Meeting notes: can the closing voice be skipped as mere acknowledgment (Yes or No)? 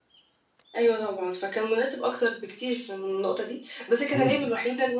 Yes